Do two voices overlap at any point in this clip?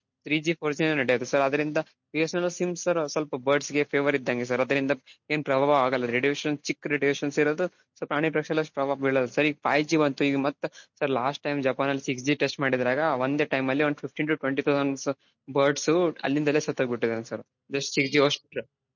No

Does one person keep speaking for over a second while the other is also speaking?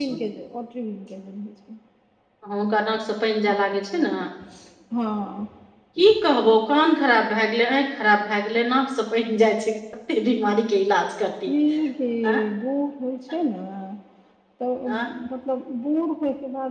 No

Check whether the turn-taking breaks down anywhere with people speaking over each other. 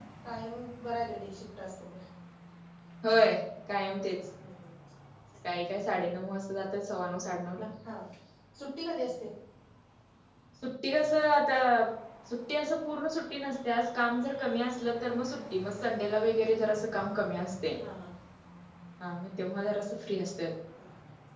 No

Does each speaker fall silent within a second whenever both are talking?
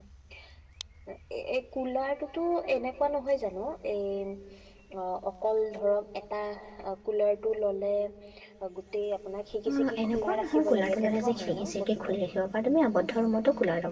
No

